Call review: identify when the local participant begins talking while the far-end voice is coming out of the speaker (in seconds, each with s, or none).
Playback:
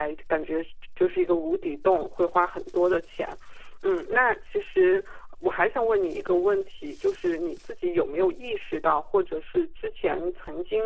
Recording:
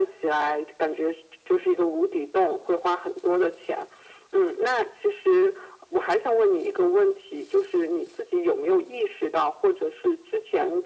none